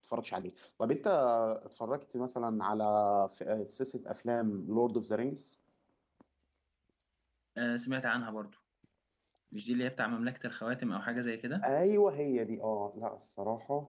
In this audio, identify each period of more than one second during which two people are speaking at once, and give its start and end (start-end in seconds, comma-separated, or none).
none